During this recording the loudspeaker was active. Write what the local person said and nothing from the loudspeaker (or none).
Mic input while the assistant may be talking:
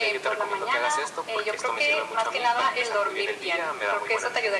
none